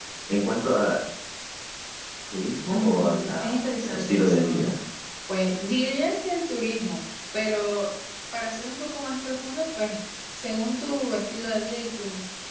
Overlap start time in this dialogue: 2.7 s

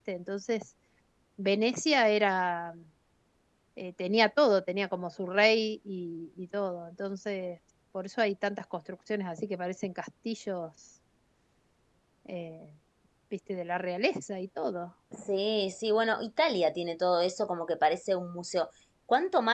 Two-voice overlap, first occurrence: none

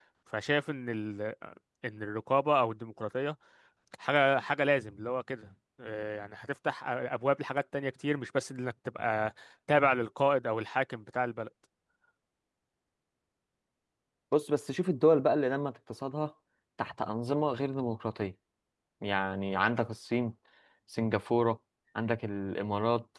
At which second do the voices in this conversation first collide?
none

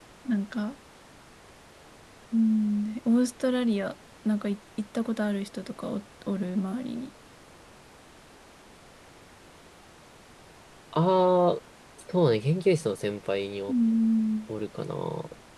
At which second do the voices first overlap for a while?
none

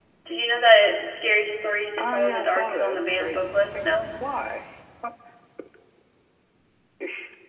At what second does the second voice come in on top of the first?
2.0 s

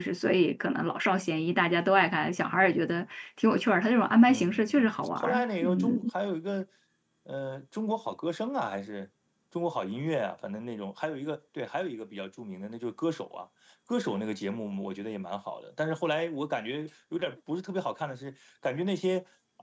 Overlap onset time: 4.3 s

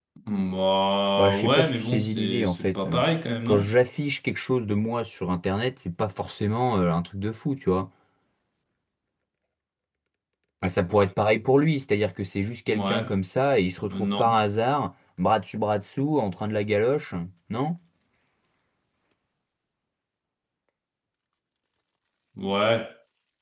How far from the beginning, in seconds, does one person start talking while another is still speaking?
1.2 s

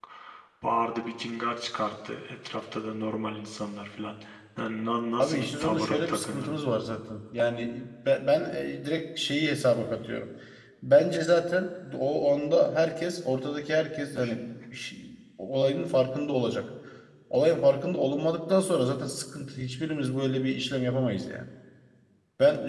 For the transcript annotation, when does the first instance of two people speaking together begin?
5.2 s

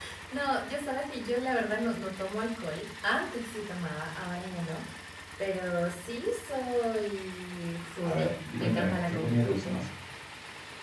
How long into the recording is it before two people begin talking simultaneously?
8.0 s

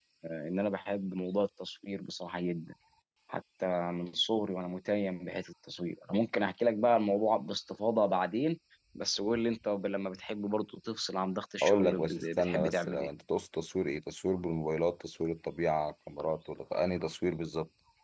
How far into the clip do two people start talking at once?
11.6 s

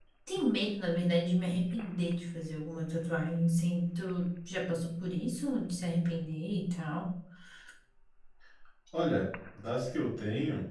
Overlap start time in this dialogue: none

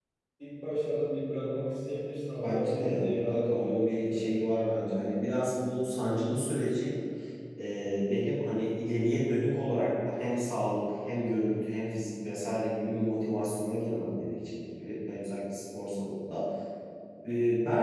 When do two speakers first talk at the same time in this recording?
2.4 s

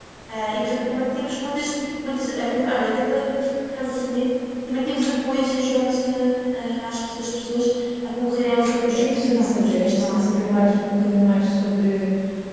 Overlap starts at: 8.9 s

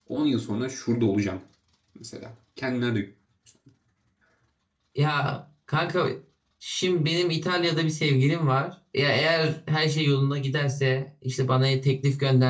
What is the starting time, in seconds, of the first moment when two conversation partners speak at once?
none

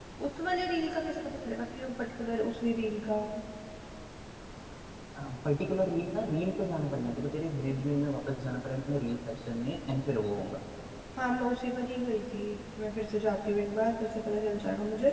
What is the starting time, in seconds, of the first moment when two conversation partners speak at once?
none

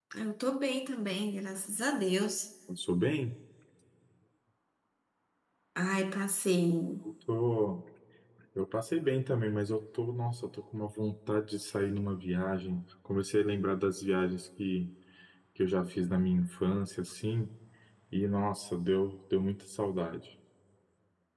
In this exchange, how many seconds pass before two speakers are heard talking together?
none

